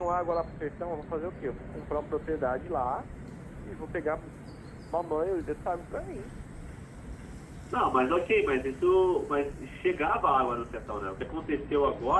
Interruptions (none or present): none